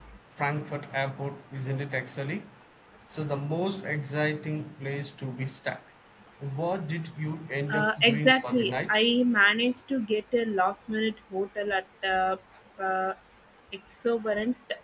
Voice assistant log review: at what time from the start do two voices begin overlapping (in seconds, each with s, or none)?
7.7 s